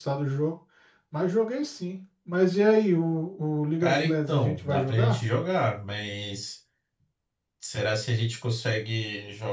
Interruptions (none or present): present